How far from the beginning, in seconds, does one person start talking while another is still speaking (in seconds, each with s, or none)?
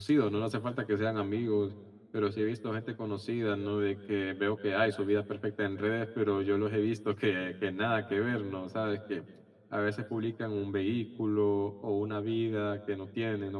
none